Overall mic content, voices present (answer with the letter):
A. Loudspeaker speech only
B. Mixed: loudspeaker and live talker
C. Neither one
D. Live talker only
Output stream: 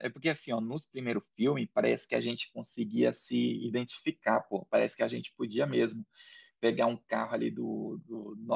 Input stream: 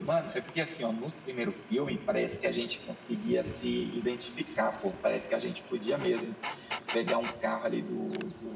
A